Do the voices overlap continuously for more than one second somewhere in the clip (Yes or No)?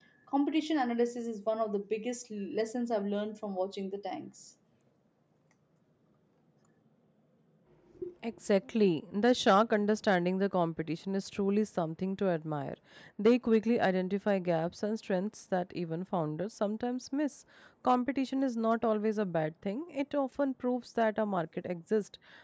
No